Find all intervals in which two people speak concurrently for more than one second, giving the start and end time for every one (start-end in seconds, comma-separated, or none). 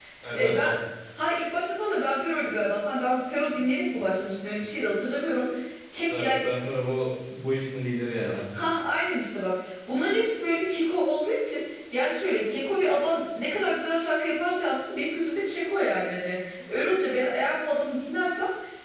none